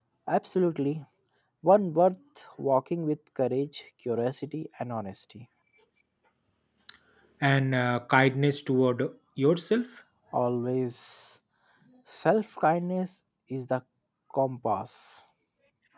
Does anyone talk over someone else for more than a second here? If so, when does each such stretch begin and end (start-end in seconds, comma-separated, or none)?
none